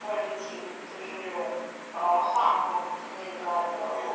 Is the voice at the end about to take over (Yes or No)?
Yes